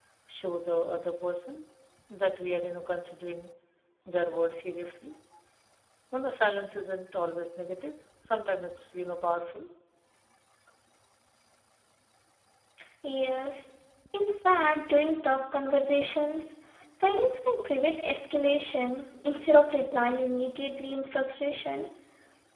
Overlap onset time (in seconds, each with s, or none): none